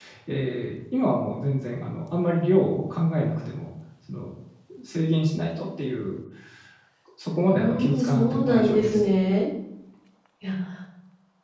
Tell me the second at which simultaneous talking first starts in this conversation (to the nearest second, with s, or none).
7 s